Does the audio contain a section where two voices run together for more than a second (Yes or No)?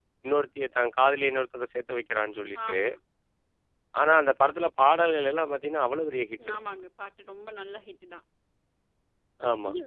No